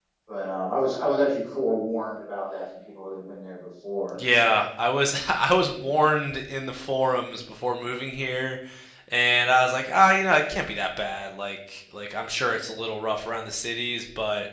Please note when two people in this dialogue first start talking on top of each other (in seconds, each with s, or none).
none